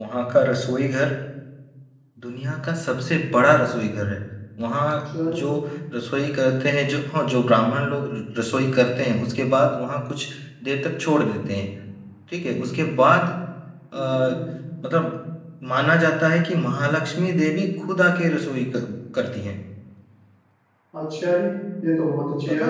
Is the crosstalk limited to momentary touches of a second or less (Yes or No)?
Yes